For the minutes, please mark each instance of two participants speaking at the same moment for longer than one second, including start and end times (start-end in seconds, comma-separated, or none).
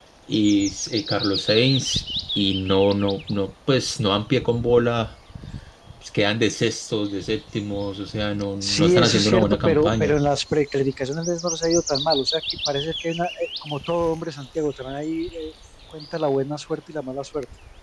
8.6-10.2